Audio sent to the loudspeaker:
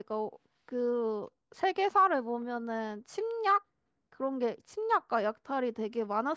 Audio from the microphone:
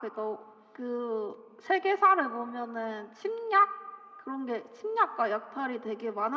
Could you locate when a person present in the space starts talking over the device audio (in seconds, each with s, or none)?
none